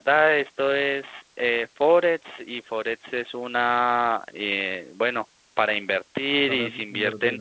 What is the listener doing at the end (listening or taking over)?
listening